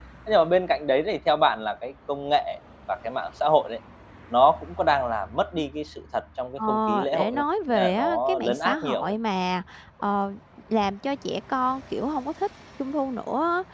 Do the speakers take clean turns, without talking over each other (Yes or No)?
No